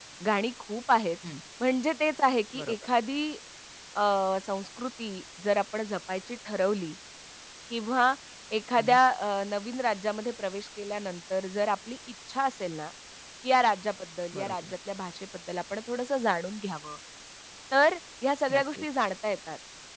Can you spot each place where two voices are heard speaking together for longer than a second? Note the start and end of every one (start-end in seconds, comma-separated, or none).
none